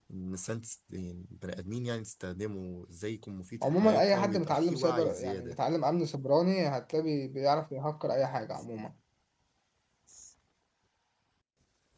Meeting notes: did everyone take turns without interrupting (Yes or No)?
No